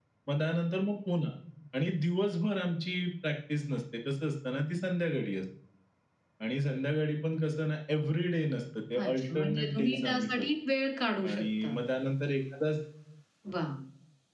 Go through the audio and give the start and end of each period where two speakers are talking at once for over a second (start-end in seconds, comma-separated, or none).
9.0-10.5